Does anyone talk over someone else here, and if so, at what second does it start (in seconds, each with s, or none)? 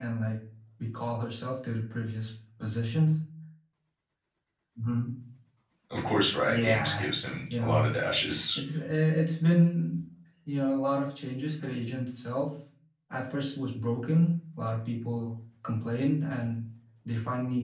6.5 s